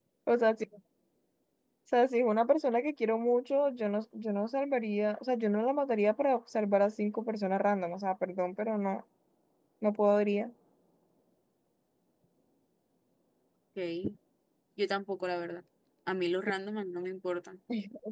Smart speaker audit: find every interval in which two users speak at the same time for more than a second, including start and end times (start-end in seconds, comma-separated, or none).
none